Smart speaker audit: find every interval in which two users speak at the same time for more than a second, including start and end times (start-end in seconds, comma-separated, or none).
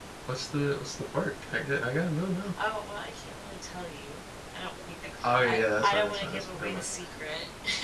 5.2-6.8